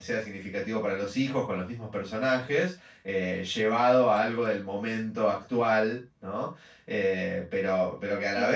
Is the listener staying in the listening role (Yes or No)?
Yes